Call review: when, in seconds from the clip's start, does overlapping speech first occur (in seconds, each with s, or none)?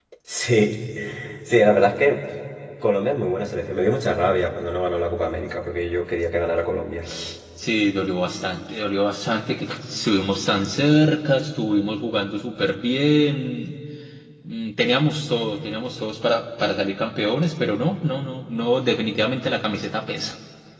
none